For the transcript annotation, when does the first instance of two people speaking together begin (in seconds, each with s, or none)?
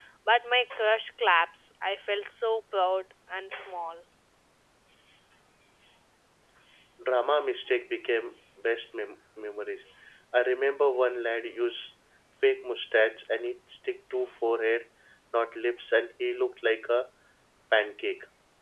none